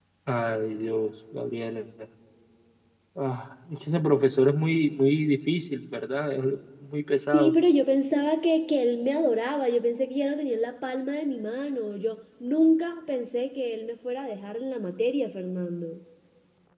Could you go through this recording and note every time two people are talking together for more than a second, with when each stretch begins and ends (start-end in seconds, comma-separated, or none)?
none